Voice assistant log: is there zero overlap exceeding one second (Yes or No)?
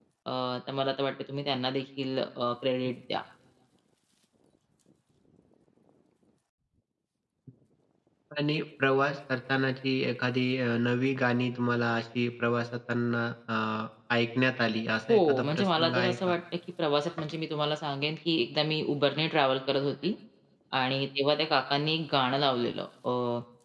No